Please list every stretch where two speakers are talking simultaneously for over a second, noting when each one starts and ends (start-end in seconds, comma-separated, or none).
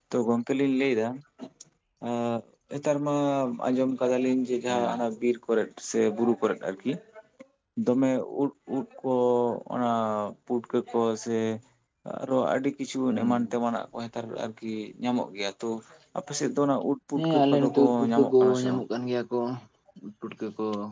17.2-18.8